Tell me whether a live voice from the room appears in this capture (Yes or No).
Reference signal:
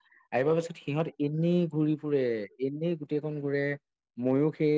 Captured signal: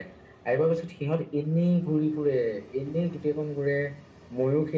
No